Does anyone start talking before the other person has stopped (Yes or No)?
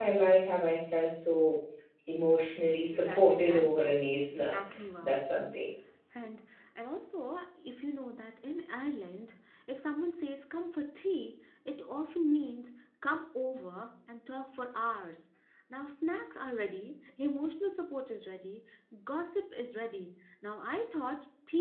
Yes